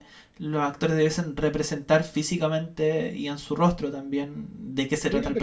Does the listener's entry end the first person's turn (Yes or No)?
Yes